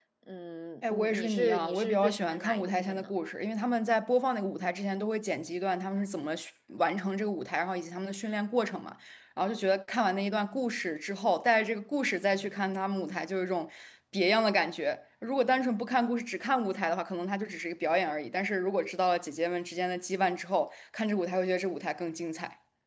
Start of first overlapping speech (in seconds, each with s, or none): 0.9 s